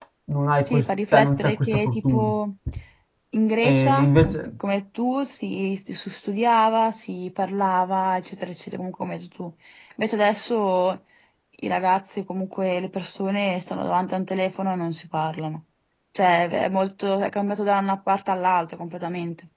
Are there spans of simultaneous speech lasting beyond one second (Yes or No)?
Yes